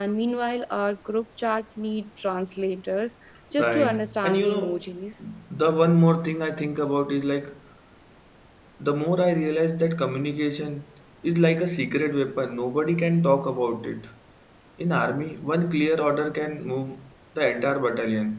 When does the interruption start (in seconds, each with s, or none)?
3.6 s